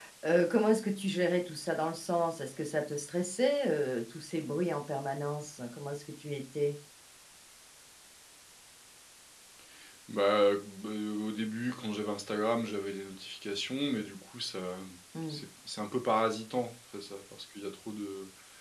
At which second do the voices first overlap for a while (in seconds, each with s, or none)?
none